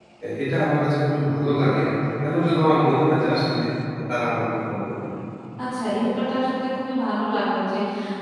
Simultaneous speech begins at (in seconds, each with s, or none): none